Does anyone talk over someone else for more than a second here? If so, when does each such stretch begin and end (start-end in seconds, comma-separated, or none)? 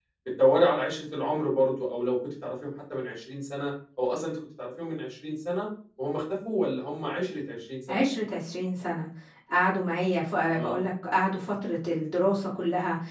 none